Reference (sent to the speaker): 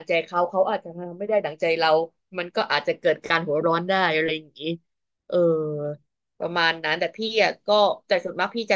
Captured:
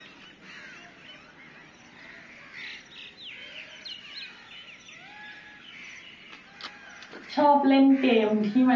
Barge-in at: 7.3 s

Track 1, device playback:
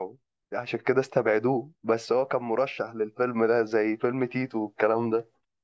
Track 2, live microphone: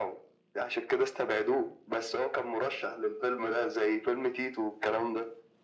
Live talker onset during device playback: none

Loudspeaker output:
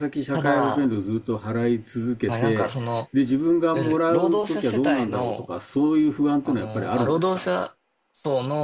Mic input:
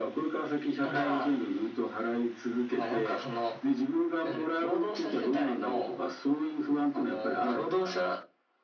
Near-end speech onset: none

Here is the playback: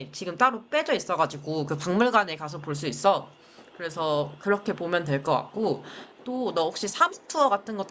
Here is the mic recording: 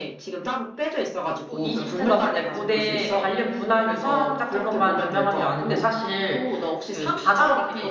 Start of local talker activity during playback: 1.4 s

